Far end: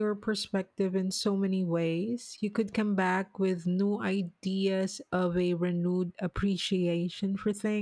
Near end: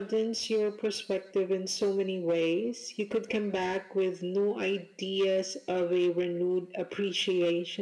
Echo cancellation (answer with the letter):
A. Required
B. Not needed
A